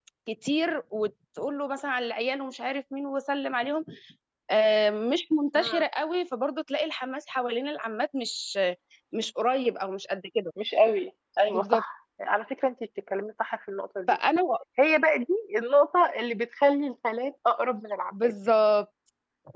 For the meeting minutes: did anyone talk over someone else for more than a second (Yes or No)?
No